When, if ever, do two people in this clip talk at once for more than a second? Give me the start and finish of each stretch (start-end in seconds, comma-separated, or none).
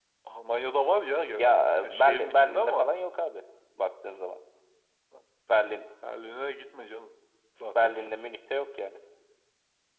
1.4-2.9